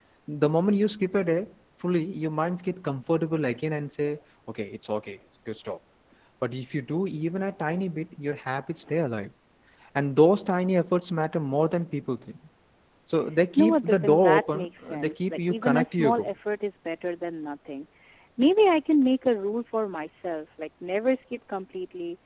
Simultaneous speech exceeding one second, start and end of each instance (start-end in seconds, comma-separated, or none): 13.6-16.3